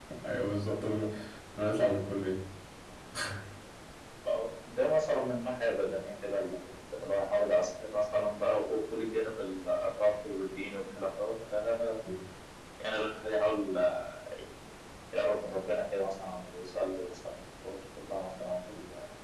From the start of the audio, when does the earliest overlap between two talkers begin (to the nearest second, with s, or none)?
none